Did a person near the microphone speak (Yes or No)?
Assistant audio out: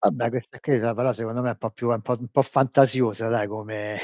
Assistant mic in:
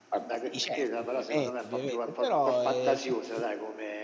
Yes